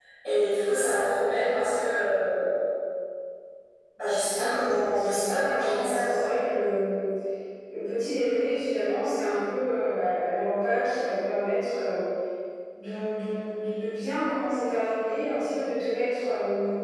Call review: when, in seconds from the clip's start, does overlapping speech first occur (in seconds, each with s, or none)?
4.4 s